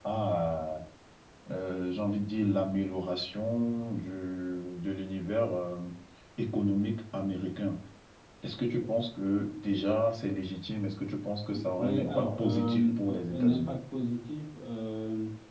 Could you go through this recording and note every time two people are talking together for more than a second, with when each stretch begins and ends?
11.8-13.7

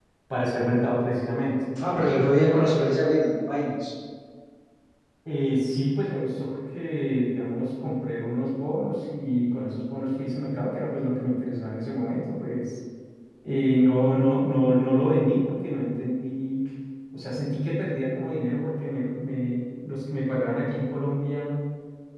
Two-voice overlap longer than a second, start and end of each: none

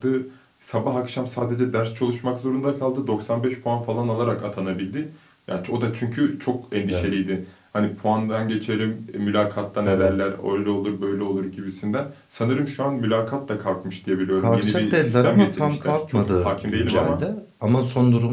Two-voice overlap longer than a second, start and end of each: 14.4-17.2

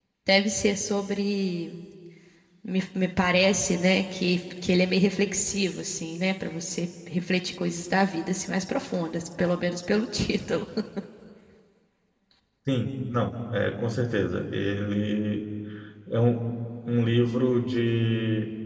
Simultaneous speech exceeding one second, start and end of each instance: none

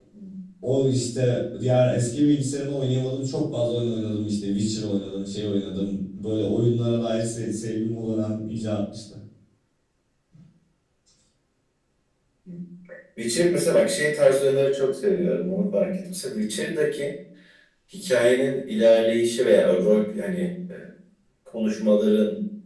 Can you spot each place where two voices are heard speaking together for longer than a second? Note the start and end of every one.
none

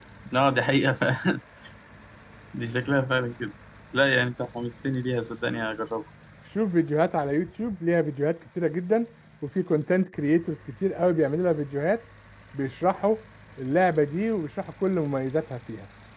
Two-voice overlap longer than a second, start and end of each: none

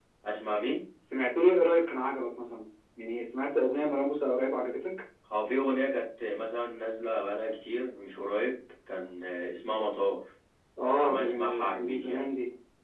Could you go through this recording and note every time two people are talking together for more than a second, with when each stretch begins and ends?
11.0-12.3

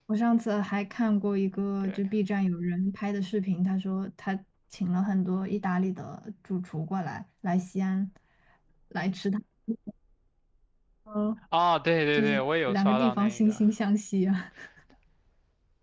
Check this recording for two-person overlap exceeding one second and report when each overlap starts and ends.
12.2-13.6

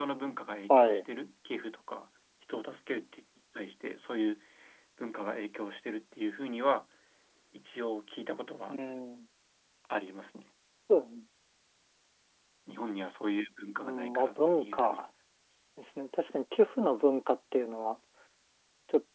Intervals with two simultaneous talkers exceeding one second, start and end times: 13.8-15.0

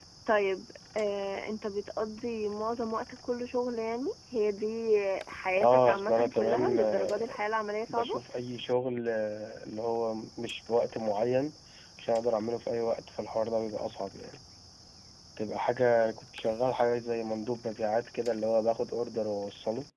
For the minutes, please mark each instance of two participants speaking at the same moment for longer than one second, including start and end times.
5.6-7.4

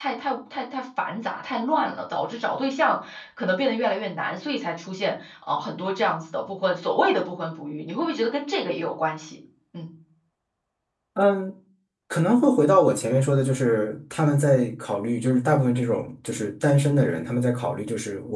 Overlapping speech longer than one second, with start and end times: none

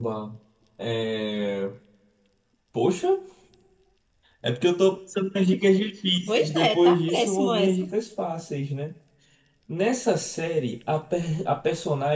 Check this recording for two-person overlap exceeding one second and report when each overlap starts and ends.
6.3-7.9

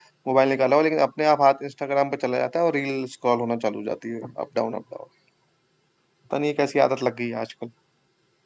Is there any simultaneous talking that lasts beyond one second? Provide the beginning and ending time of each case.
none

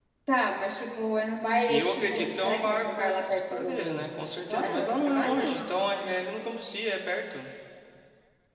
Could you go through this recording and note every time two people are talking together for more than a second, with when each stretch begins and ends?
1.7-5.7

